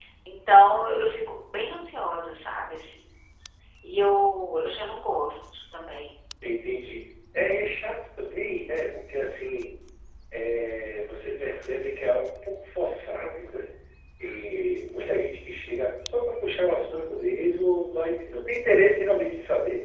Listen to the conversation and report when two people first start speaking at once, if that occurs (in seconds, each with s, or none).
none